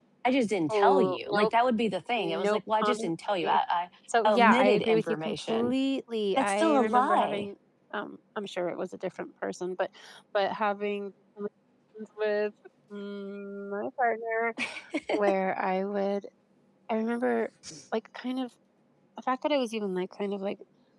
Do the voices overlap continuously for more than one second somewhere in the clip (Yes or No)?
Yes